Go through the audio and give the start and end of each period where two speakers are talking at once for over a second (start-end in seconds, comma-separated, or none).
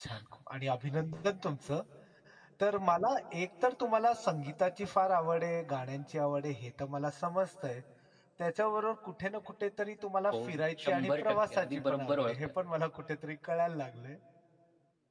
10.3-12.5